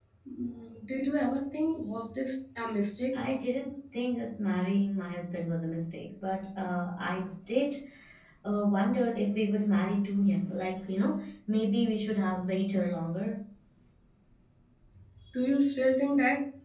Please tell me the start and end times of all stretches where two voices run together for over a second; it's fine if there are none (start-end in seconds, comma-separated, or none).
none